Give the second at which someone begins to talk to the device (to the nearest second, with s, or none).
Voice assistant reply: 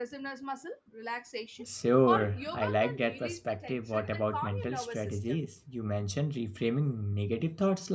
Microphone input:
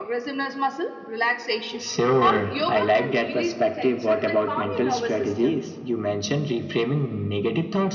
none